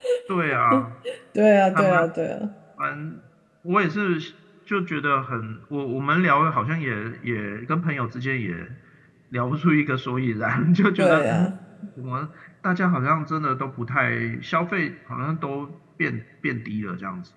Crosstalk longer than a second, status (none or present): none